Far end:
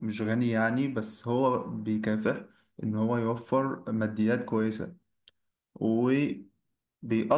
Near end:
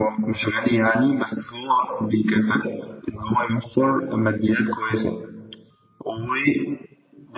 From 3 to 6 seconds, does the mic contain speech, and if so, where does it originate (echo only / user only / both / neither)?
echo only